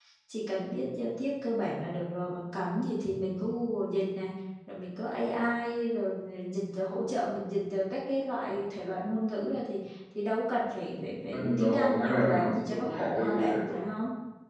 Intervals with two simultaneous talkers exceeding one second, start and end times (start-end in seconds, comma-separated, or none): 11.3-13.7